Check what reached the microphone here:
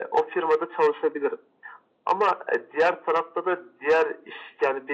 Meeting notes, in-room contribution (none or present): none